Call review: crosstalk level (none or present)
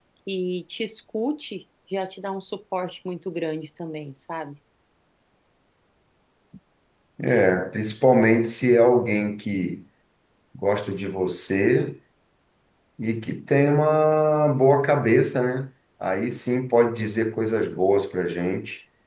none